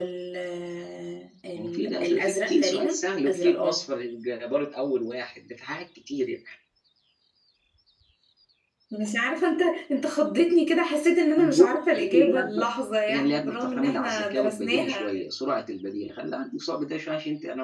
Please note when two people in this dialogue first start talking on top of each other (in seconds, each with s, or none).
1.6 s